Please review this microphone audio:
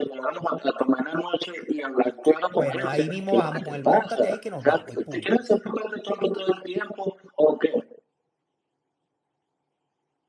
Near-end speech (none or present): present